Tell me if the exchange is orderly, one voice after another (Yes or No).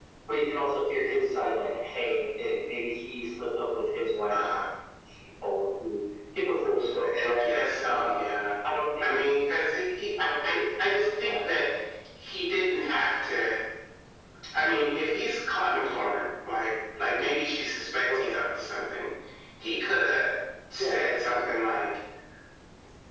No